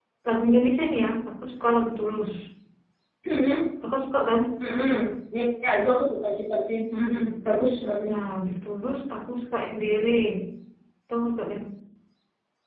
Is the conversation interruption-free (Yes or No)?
Yes